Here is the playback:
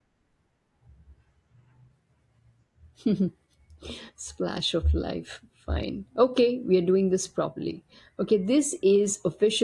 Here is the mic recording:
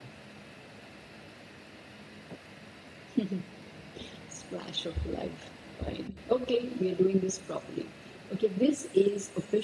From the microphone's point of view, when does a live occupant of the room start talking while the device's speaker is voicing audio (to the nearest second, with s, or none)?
none